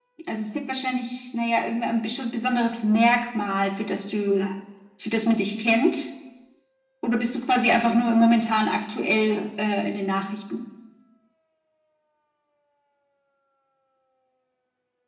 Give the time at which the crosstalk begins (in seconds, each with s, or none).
none